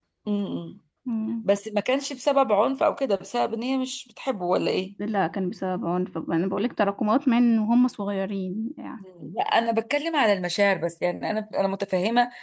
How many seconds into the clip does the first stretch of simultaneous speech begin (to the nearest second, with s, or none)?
none